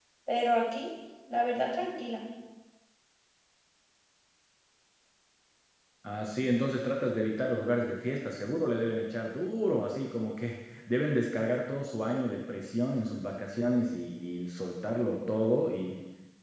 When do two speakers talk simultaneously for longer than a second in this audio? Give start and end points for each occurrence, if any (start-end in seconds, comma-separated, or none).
none